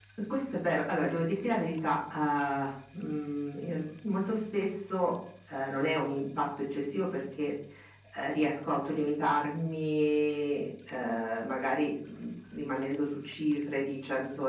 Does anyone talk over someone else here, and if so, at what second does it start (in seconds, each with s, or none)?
none